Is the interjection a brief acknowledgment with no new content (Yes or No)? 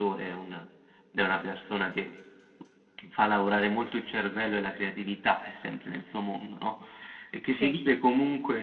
Yes